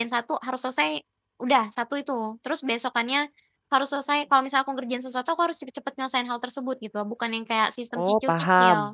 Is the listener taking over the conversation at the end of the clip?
No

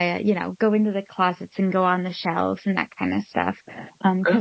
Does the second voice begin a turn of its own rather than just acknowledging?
No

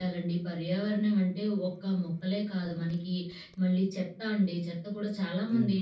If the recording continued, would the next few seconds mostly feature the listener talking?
No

